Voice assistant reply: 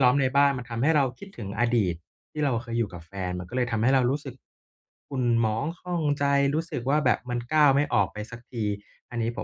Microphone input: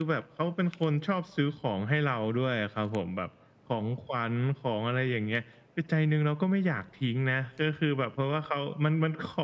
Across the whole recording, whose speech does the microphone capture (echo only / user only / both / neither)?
user only